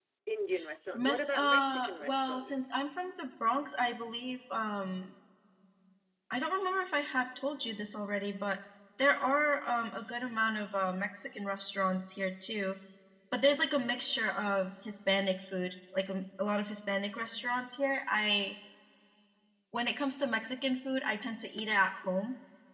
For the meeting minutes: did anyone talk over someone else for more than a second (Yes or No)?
Yes